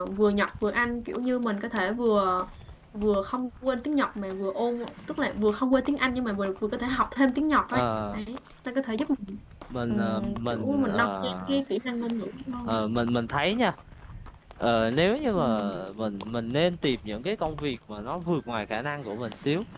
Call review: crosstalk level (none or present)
present